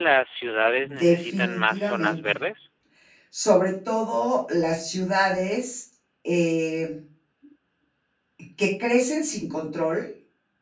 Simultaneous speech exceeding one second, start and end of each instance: 0.8-2.2

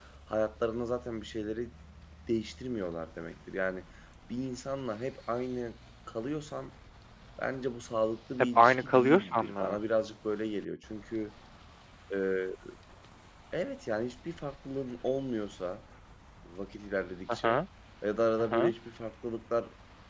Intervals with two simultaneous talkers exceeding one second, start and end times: 8.4-9.8

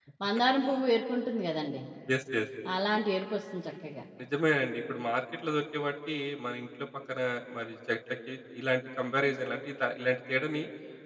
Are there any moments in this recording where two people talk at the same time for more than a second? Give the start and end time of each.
none

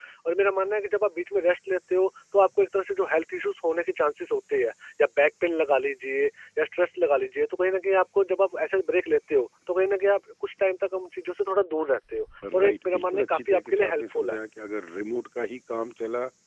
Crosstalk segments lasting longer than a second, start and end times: 12.5-14.4

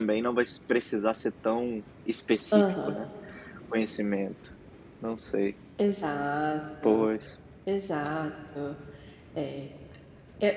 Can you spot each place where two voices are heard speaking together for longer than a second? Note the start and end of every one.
none

